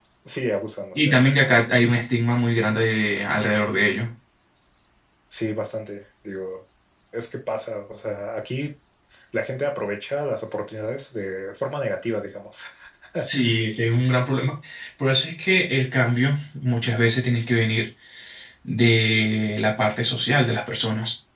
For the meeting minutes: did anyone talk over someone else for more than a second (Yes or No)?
No